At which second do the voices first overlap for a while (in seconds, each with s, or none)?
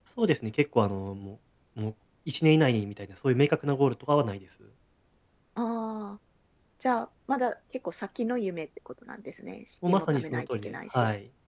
9.8 s